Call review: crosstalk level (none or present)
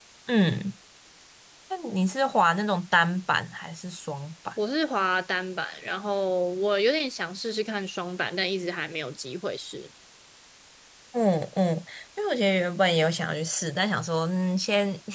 none